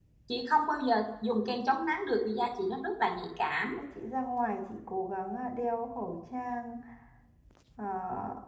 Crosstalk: none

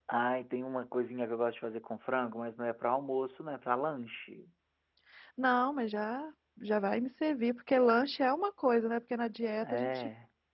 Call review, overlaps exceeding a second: none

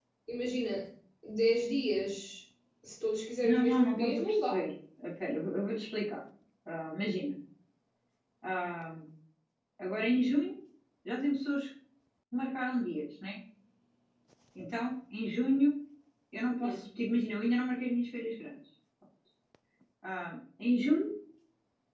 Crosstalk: present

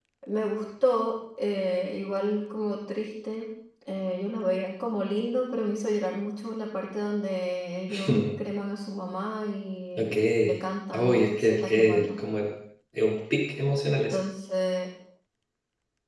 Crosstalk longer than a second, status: present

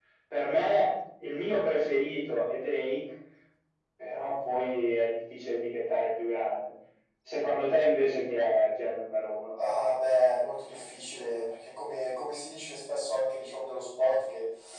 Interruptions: none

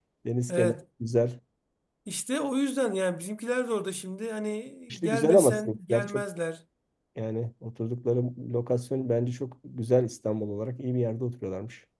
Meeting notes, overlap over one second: present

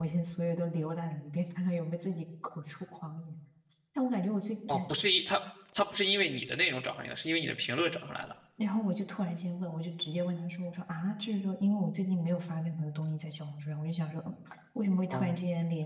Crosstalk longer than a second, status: none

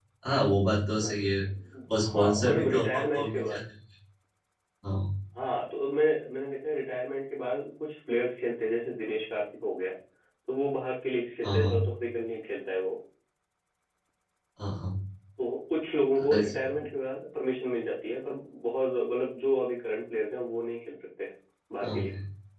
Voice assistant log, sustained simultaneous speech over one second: present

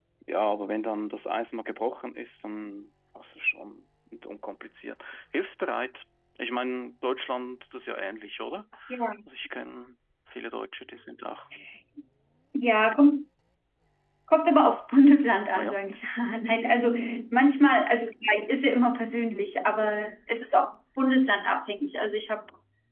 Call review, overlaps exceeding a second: none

